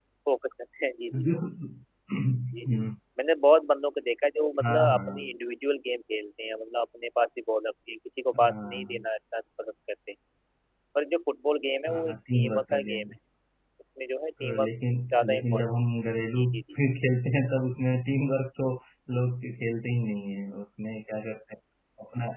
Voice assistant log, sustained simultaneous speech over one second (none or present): present